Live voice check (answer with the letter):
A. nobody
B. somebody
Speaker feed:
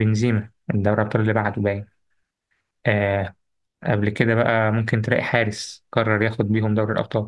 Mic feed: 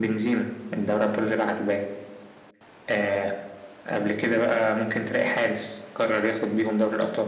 A